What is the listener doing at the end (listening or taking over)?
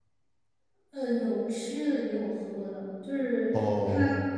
listening